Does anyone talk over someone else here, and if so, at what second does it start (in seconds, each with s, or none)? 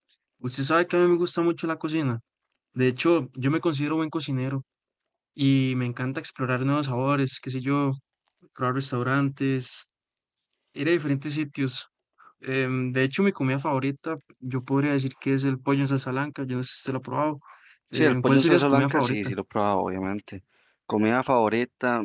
17.9 s